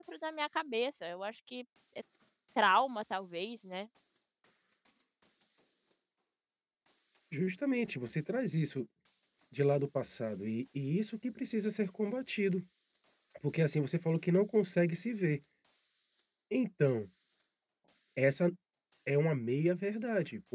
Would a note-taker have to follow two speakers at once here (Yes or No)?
No